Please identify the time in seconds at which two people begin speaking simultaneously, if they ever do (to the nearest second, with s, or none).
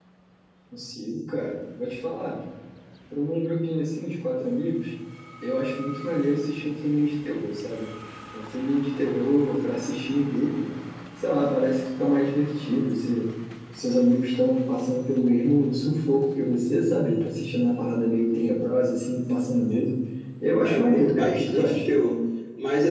21 s